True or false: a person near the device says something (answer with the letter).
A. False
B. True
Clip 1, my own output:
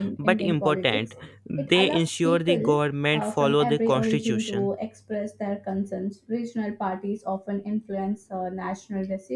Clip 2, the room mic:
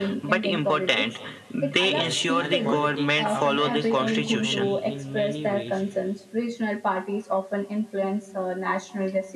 B